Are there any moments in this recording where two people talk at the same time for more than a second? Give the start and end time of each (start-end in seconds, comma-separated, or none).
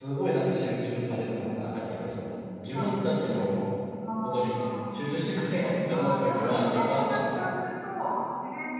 5.9-7.3